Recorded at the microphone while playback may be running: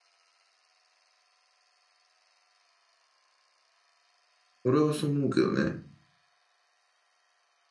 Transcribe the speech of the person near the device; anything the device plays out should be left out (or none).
俺はそう思うけどね。